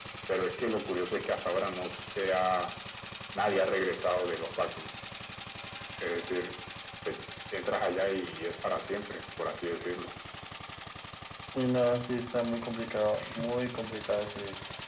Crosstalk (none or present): none